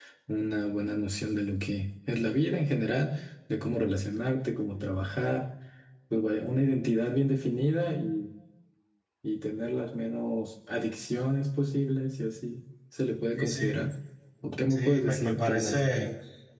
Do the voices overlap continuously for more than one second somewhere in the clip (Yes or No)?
Yes